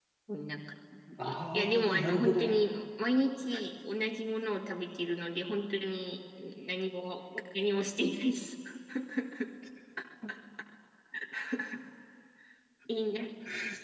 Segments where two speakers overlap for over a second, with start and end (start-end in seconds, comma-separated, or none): 1.2-2.6